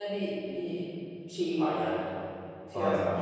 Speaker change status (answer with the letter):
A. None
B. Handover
B